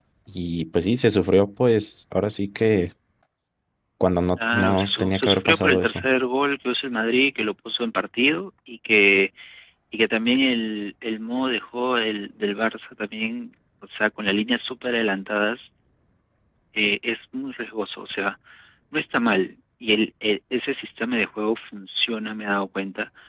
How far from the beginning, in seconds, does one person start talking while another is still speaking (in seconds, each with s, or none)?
4.5 s